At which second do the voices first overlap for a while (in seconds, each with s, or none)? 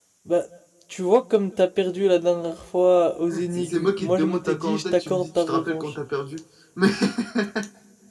3.3 s